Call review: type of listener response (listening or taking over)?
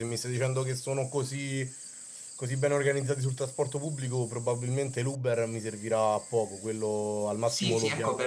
taking over